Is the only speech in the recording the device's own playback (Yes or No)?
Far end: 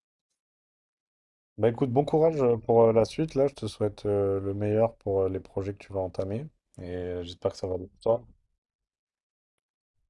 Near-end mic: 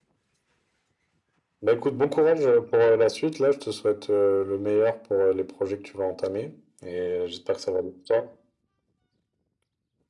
Yes